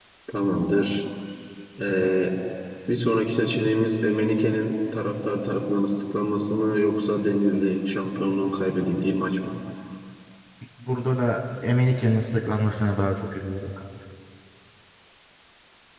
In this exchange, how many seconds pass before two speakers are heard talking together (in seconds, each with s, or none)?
none